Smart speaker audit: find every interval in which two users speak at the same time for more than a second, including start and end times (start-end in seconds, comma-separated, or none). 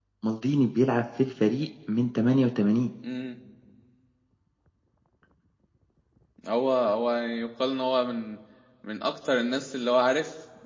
none